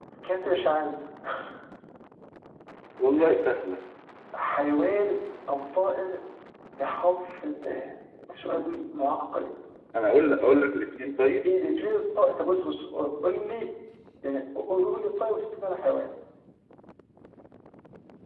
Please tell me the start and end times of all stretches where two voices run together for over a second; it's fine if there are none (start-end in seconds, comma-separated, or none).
none